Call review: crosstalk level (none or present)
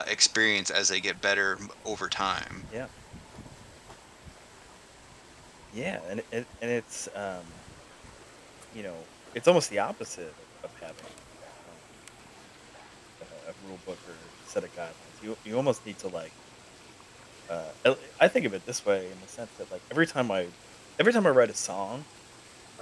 none